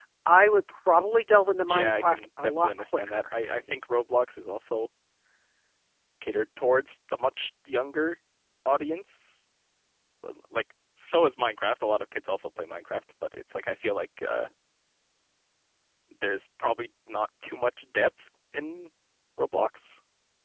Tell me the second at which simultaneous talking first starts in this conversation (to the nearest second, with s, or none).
2 s